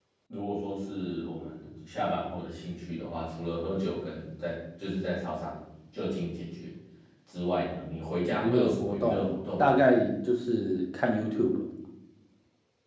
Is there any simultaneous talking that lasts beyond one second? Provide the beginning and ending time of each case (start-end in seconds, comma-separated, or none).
8.4-9.8